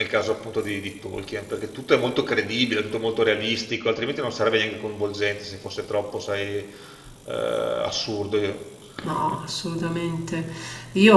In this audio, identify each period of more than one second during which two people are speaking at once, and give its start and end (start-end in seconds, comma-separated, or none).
none